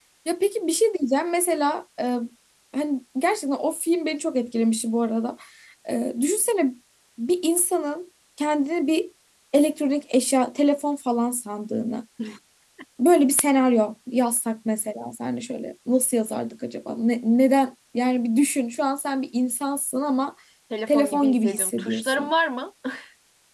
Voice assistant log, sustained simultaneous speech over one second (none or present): present